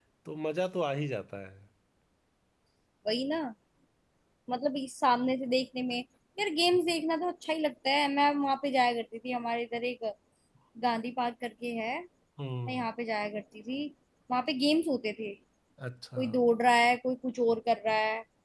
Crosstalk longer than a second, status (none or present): none